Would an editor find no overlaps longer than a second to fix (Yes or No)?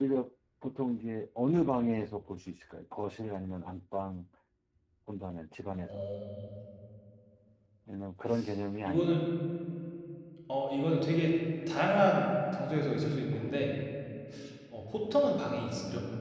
Yes